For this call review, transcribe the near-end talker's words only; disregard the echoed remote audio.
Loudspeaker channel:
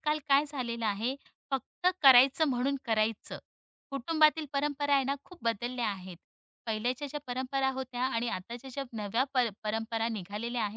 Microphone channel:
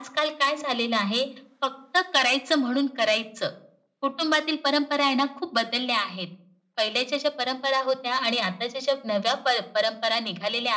none

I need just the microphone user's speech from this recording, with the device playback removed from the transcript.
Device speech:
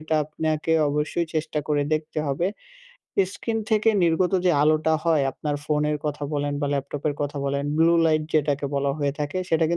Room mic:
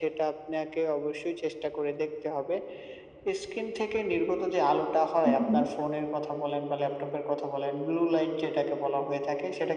হুম, হুম।

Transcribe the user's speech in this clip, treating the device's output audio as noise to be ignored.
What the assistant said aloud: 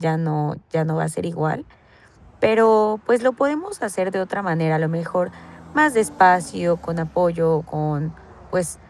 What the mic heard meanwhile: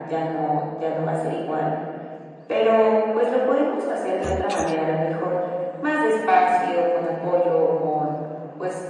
Okey.

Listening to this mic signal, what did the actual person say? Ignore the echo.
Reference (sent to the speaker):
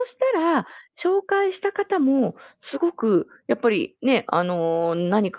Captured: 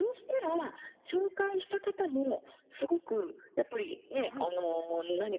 はい、

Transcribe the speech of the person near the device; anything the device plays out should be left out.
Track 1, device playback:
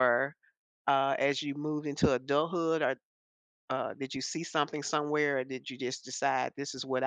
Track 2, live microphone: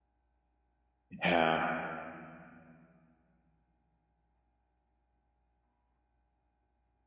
Yeah.

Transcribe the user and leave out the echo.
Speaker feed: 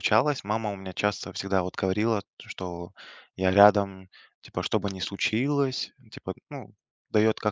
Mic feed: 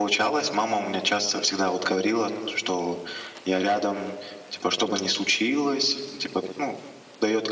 none

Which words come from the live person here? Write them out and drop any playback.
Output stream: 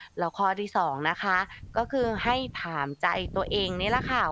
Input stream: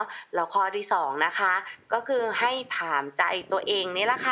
none

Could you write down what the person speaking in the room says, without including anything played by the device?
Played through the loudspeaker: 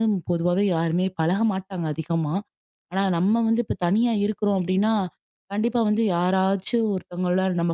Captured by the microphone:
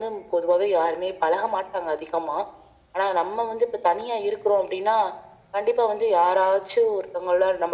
none

